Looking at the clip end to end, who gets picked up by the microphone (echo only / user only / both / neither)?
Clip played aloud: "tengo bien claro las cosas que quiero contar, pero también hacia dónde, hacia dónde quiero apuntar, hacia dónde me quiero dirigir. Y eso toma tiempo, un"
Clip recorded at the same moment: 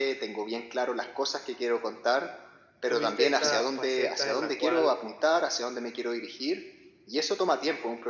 both